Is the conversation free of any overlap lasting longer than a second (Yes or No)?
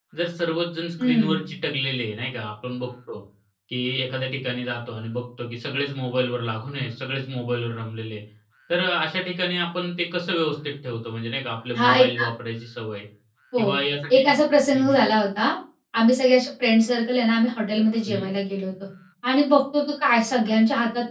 Yes